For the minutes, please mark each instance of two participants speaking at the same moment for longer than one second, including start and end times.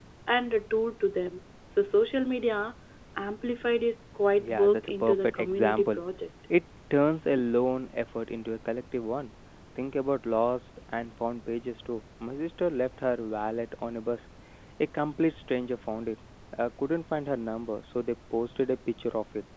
4.4-6.0

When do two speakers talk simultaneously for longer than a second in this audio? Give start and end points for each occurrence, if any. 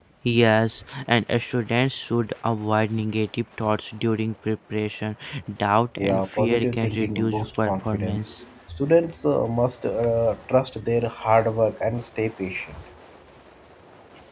6.0-8.3

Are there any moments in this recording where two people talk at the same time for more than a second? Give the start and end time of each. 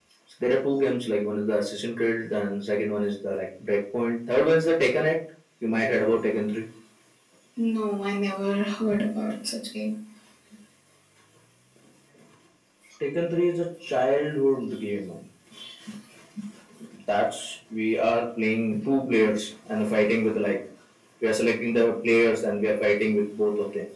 none

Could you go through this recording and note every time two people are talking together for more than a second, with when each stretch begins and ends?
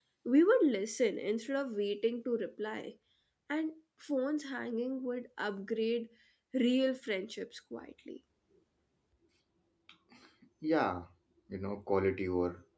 none

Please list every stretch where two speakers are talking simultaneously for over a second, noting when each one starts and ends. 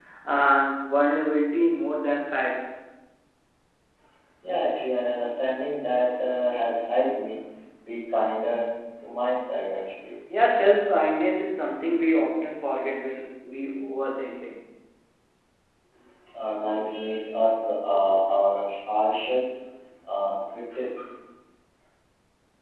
none

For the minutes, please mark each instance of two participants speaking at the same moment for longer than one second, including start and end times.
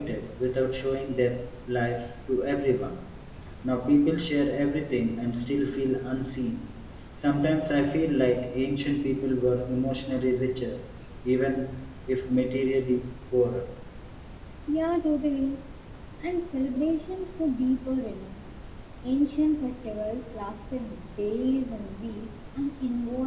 none

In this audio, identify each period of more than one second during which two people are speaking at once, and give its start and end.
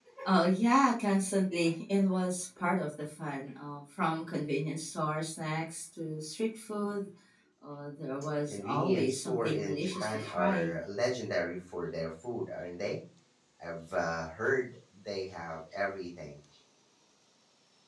8.5-10.7

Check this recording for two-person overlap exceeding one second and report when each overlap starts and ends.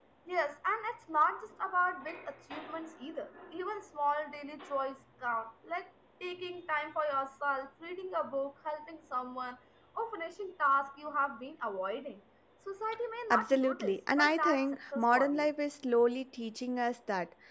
13.3-15.5

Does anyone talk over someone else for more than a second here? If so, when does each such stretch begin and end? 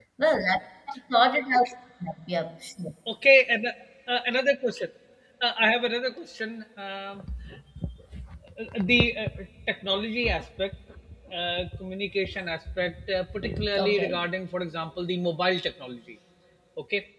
none

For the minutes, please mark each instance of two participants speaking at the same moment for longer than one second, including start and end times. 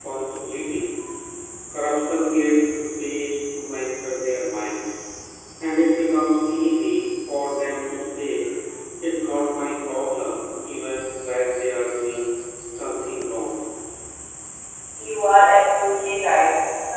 none

